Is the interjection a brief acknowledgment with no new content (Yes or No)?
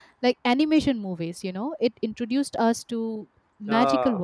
Yes